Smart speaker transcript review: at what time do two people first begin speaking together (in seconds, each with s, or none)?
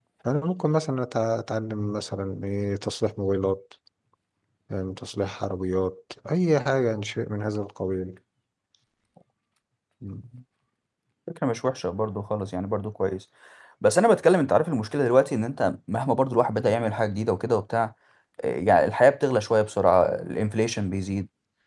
none